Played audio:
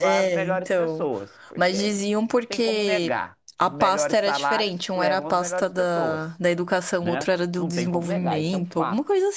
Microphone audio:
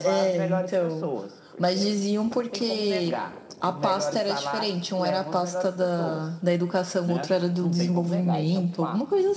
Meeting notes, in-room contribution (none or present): none